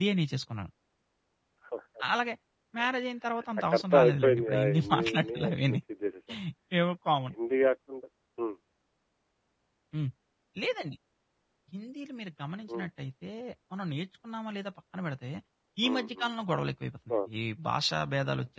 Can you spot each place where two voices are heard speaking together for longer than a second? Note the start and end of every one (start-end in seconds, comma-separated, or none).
3.7-5.8